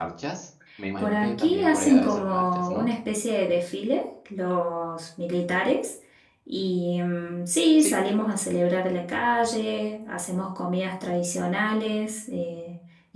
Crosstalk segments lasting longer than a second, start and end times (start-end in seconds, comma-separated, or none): 1.0-2.9